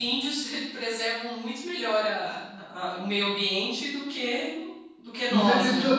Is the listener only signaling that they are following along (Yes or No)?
No